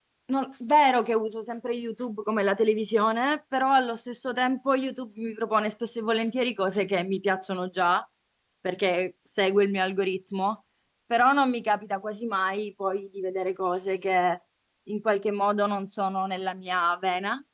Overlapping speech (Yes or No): No